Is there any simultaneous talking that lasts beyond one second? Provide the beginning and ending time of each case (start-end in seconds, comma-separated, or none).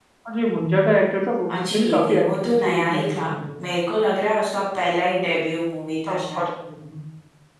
1.5-3.2